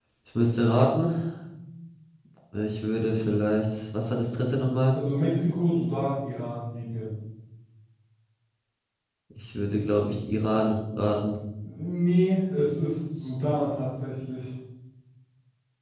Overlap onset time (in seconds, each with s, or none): none